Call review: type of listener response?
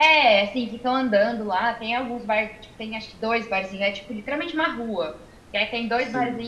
listening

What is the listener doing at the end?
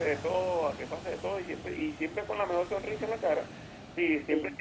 listening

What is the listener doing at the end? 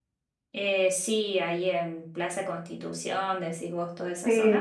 taking over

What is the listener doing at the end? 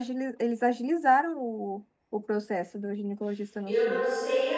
taking over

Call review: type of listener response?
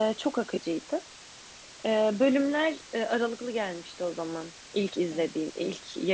listening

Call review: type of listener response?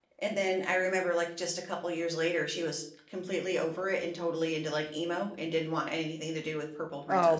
taking over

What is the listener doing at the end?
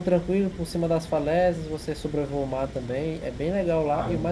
listening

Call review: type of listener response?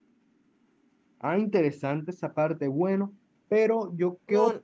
listening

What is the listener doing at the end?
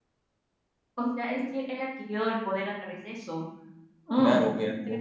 taking over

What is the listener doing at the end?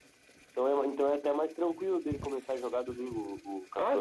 taking over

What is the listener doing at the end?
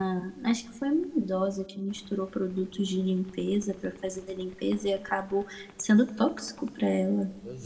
listening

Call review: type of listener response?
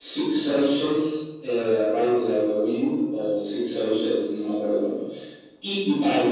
listening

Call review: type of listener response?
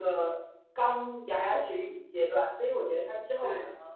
listening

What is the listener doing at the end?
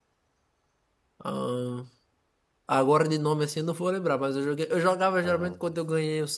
listening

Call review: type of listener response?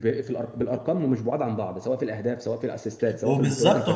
taking over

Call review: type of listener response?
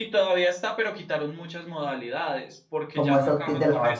taking over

